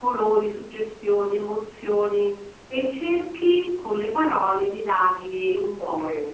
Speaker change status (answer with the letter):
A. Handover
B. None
A